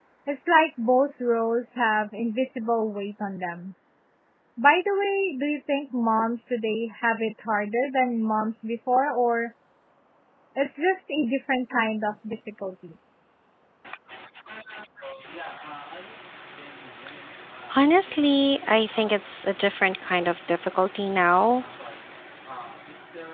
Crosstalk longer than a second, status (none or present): none